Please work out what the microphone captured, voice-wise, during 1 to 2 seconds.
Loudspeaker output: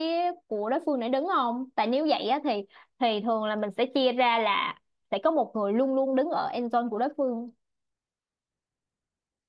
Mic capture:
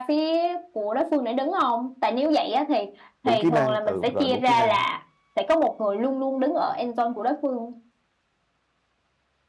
echo only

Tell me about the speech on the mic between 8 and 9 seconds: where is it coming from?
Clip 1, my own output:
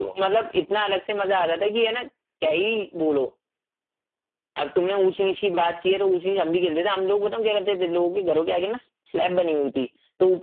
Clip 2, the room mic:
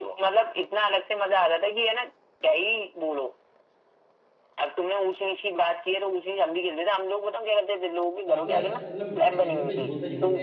both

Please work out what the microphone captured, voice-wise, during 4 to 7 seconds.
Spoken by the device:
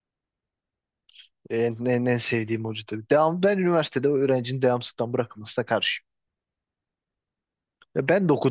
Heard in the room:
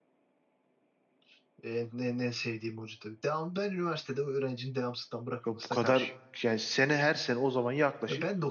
both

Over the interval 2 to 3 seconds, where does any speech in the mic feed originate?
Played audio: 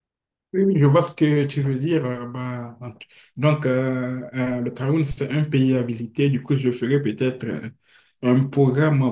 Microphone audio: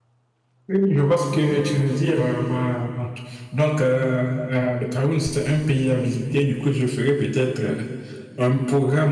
echo only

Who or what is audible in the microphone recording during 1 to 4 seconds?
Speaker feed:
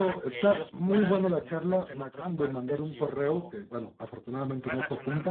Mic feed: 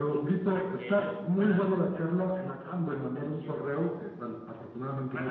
echo only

